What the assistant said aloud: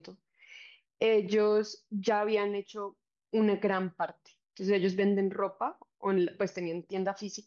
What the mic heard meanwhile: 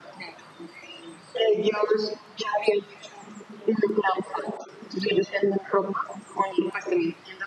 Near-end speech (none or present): none